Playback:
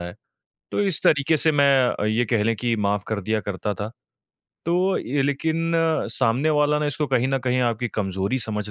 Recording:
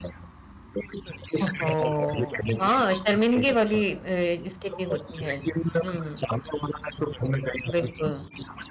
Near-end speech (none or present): present